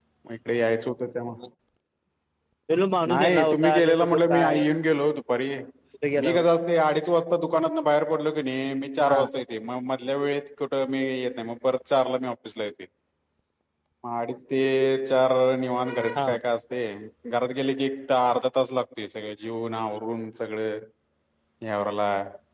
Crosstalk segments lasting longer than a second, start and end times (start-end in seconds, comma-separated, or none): 3.1-4.6